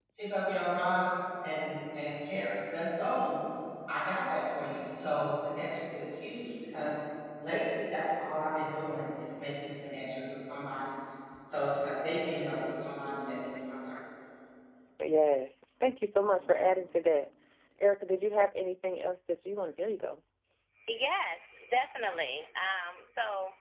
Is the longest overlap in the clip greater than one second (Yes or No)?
No